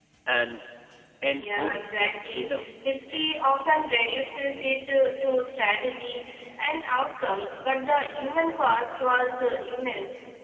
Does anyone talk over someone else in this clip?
Yes, from 1.3 s

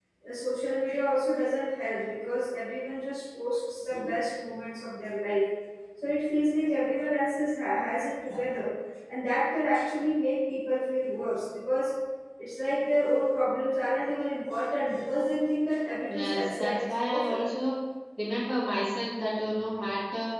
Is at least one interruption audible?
Yes, from 16.1 s

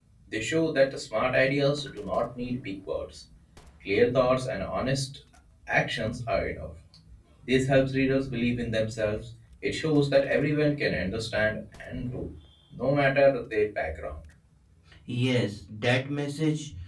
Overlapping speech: No

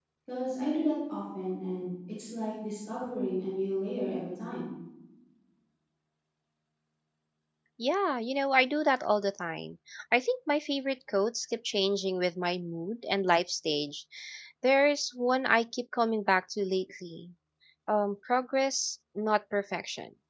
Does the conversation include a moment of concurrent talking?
No

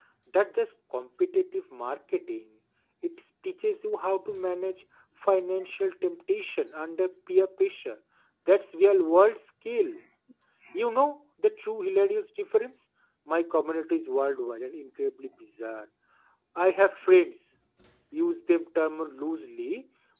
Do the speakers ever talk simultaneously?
No

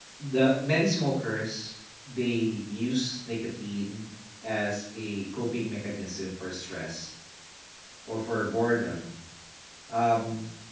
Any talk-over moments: No

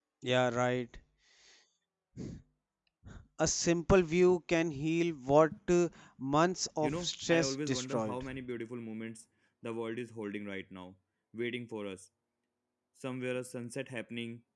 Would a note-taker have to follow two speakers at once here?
Yes, from 6.8 s

